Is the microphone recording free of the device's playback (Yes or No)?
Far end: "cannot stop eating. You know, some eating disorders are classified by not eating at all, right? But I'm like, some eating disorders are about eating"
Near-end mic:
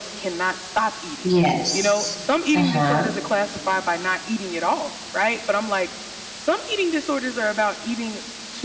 No